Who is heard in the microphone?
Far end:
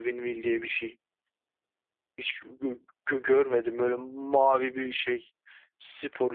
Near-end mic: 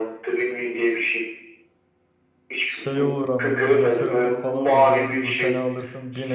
both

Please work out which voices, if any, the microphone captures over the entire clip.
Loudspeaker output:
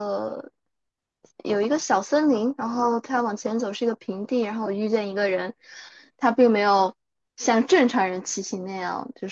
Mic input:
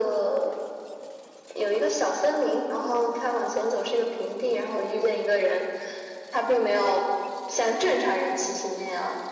echo only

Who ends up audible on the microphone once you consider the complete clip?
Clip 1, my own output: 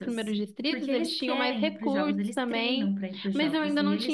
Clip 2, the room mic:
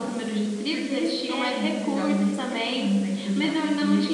echo only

